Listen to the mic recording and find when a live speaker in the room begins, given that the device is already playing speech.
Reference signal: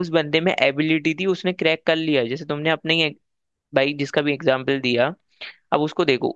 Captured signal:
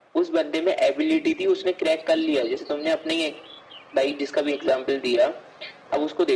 none

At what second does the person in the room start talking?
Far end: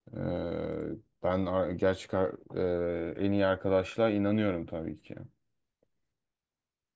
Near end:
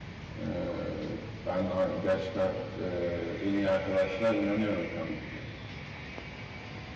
none

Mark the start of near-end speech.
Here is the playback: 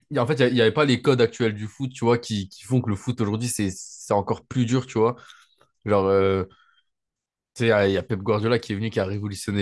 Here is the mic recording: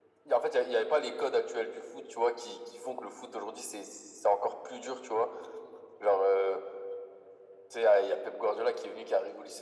none

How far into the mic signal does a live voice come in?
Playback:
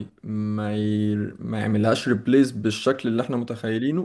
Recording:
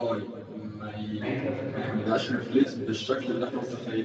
1.2 s

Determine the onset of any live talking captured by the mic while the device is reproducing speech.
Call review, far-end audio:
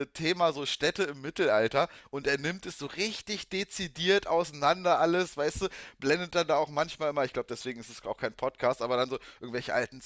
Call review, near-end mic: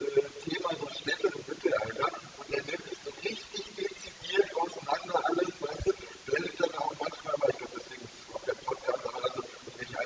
none

